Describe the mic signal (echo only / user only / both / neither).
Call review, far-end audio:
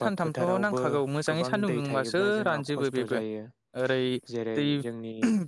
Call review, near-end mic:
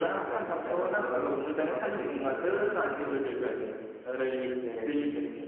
echo only